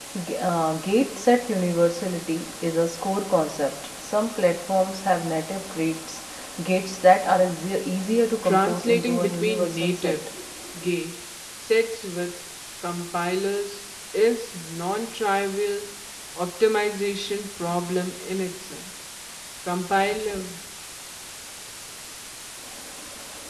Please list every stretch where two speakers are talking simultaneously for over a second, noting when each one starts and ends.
8.4-10.2

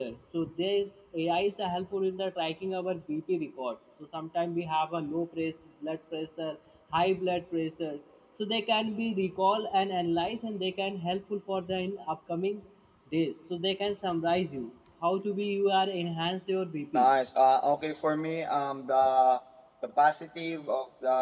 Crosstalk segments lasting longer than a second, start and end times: none

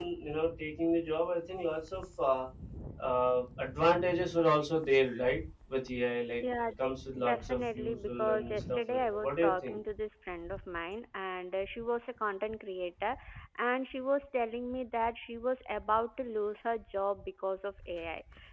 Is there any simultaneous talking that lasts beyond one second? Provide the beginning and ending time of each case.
7.2-9.8

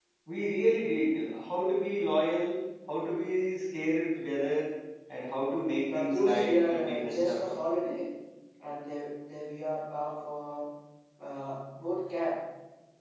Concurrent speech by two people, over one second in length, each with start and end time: 5.9-7.4

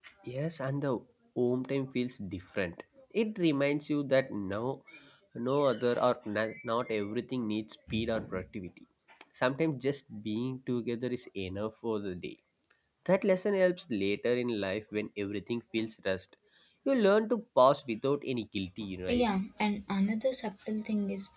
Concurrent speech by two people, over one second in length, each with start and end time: none

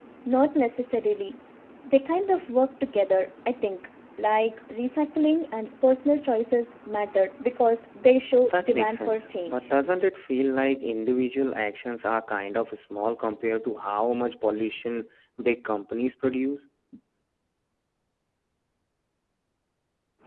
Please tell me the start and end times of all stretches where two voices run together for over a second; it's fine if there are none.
8.5-9.7

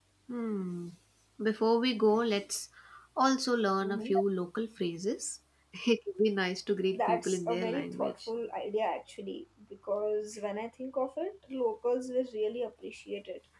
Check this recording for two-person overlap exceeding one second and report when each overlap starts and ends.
6.9-8.3

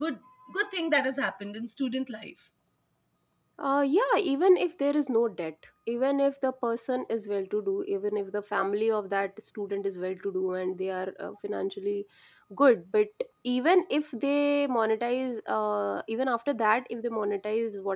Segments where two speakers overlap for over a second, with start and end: none

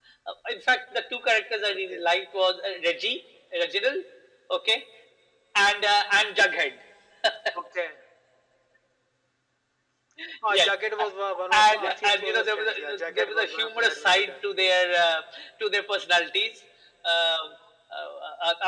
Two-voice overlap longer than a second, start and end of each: 11.5-14.7

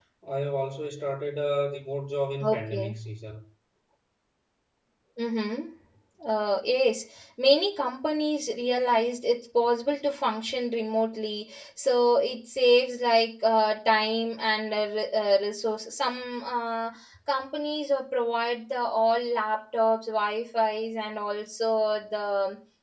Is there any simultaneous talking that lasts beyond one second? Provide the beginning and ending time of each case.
none

